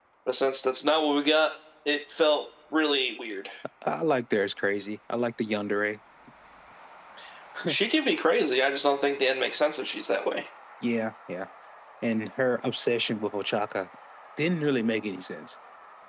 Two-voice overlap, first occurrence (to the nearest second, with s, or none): none